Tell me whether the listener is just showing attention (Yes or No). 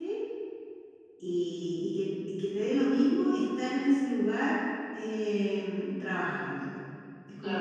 No